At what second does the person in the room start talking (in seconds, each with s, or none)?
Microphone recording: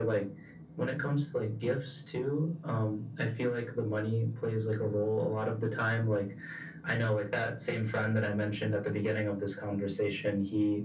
none